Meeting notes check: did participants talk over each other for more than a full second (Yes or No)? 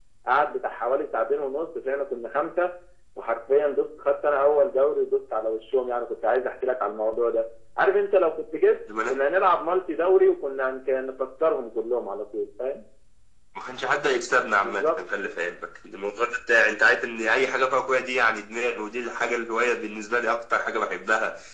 No